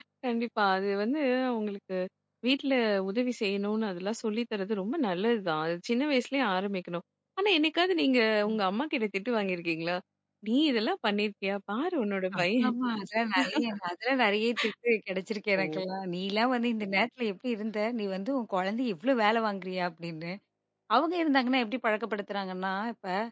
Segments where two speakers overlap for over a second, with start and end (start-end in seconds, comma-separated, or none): none